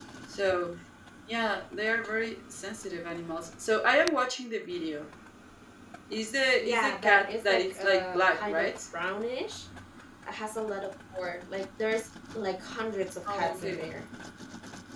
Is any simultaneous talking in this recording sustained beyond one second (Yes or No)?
Yes